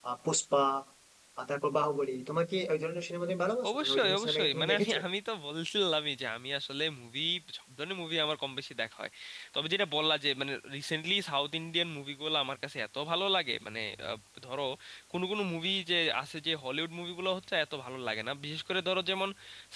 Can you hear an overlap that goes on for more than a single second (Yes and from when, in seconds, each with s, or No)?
Yes, from 3.6 s